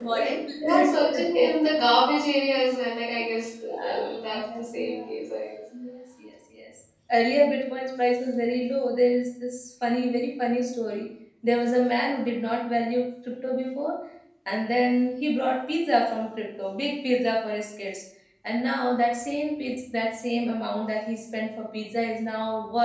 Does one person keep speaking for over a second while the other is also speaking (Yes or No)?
Yes